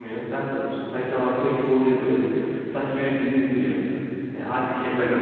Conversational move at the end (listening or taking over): taking over